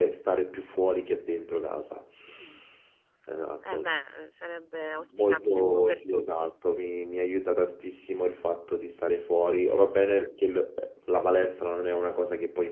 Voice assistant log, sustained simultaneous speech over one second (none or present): present